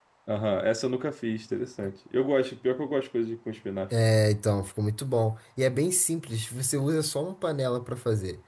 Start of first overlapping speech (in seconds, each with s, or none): none